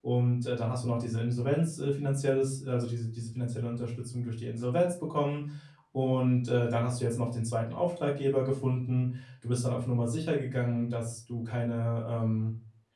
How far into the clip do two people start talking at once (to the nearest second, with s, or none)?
none